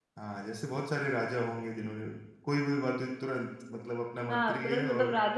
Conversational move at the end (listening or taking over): taking over